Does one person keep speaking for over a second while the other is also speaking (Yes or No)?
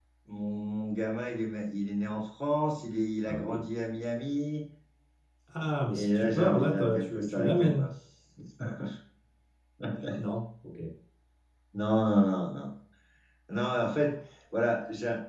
Yes